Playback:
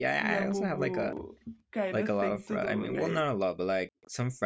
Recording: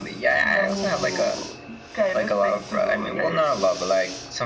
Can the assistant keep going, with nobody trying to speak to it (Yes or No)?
Yes